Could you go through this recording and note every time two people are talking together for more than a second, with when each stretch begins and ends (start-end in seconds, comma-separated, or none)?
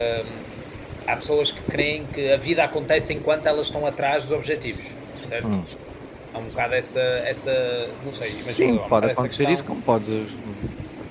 8.2-9.7